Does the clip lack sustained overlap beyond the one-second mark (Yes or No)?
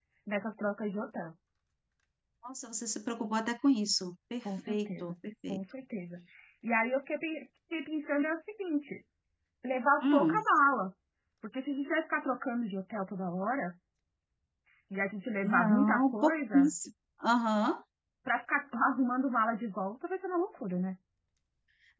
No